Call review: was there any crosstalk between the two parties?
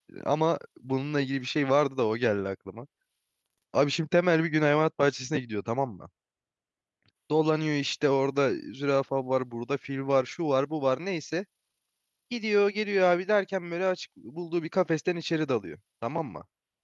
No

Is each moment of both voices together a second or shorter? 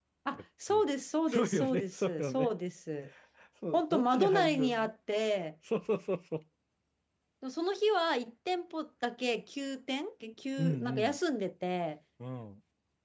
No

